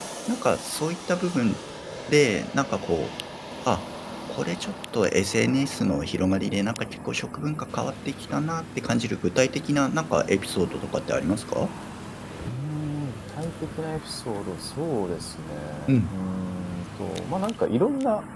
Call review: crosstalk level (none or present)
none